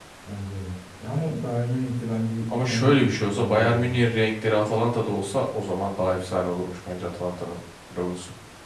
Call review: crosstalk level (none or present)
present